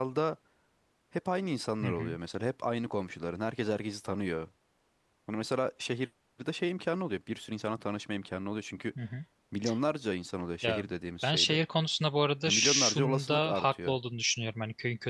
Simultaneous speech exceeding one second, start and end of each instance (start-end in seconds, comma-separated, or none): 12.5-14.0